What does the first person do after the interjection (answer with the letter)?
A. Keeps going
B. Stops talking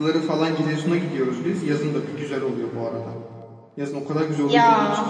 A